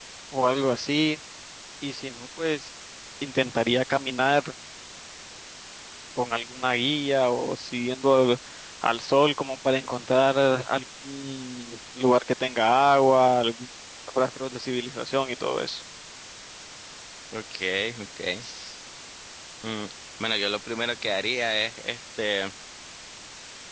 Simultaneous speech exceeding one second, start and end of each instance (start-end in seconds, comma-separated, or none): none